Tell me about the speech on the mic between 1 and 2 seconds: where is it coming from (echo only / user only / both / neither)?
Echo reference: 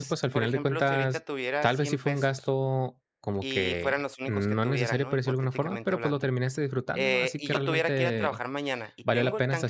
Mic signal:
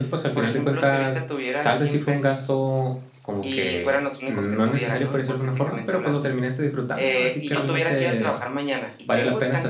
echo only